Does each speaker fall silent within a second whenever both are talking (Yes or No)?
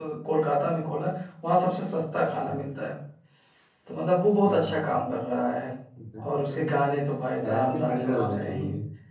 No